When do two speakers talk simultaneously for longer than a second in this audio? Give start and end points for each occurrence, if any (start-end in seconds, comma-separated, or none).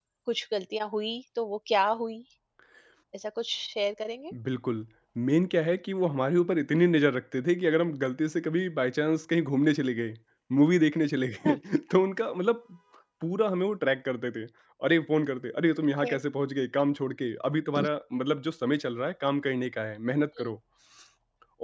none